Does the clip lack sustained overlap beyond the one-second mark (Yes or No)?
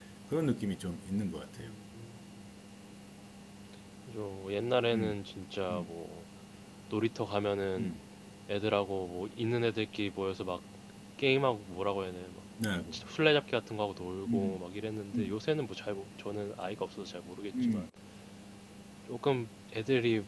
Yes